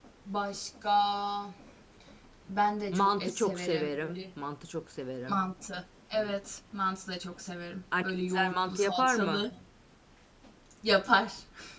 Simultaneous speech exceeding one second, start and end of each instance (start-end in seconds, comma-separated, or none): 2.9-4.2, 8.0-9.4